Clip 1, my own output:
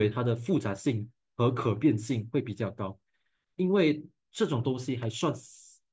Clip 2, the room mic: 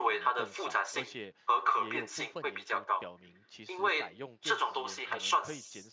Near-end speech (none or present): present